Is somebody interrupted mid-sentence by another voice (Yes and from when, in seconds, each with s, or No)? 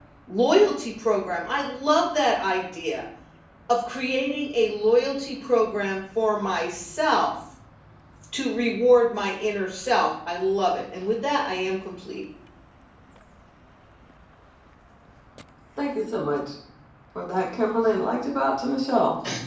No